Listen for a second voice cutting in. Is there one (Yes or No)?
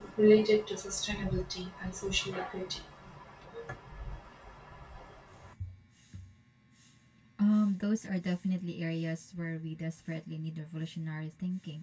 No